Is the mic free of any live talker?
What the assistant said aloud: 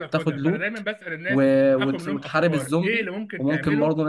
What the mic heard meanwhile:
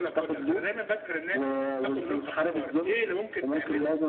Yes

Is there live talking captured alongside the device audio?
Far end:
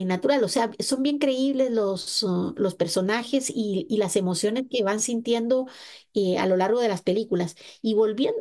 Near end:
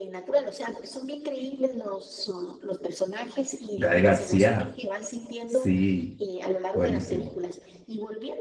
Yes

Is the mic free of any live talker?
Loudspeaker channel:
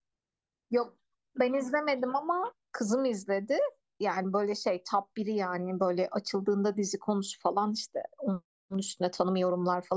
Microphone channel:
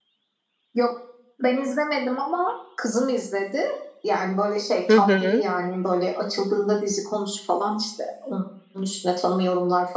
No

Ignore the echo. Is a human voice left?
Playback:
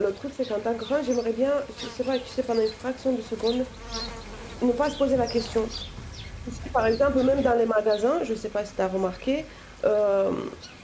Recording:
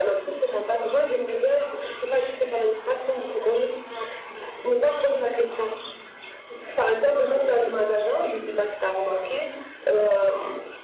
No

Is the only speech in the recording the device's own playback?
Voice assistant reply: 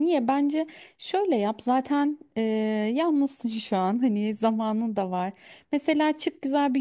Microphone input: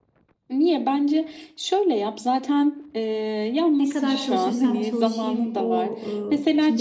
No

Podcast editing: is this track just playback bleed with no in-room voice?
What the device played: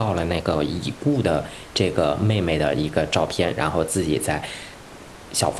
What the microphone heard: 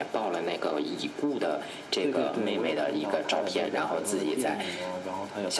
No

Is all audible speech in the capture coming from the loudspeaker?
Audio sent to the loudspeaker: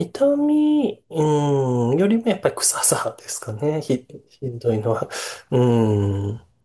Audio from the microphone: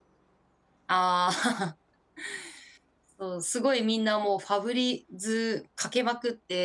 No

